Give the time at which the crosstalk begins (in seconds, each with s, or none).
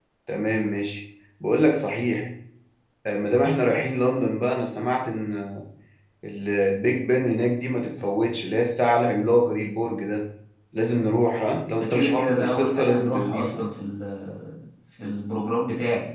11.8 s